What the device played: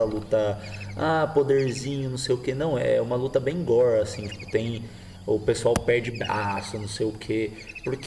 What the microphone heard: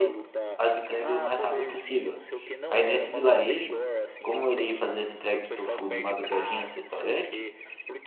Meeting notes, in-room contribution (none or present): present